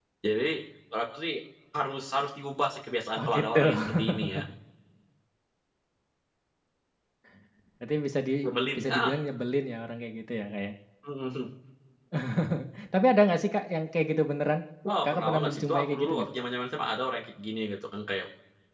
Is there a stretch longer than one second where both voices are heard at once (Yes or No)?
Yes